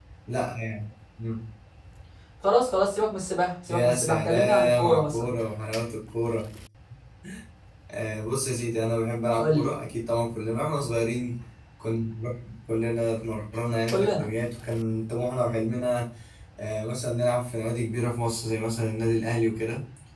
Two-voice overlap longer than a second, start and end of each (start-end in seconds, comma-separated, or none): 3.7-5.3